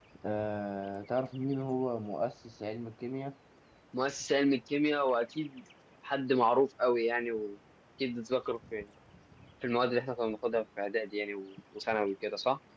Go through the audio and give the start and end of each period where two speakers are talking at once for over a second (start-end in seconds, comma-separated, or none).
none